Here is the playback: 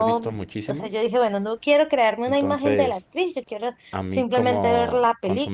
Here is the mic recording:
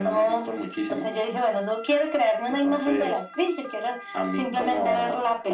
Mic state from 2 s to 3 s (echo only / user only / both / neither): echo only